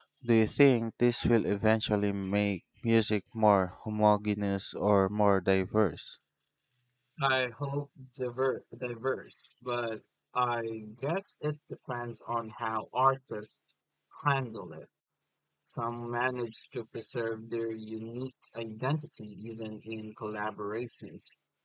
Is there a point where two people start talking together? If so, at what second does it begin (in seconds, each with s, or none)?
none